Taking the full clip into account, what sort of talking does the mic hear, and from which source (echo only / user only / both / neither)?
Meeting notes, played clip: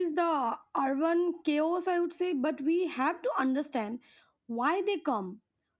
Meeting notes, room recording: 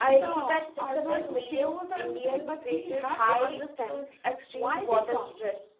both